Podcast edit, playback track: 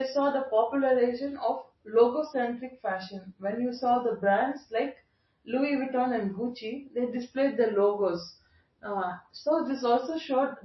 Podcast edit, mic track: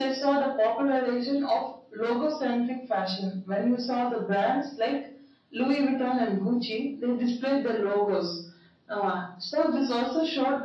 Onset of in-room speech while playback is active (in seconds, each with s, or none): none